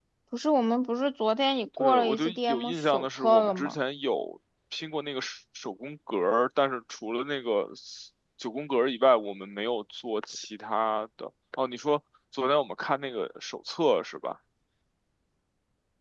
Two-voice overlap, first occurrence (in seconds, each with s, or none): 1.8 s